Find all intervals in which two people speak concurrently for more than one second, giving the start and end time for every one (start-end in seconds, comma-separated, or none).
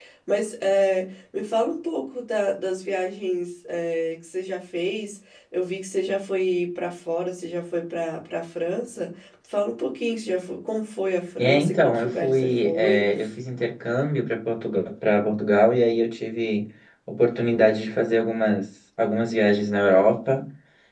11.4-13.0